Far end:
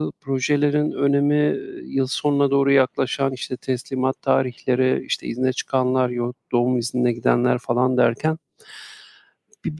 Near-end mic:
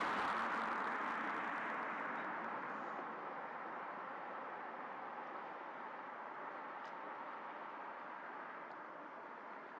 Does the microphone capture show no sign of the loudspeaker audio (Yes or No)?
Yes